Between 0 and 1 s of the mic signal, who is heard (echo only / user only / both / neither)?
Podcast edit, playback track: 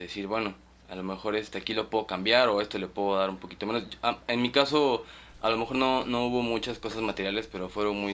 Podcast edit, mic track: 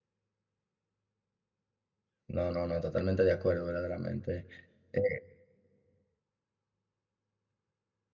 neither